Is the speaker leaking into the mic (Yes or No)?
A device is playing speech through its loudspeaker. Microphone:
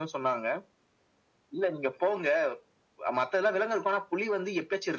Yes